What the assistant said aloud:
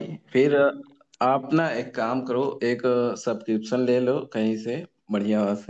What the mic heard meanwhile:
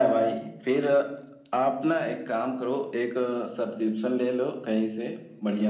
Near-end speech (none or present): none